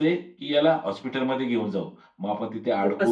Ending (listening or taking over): listening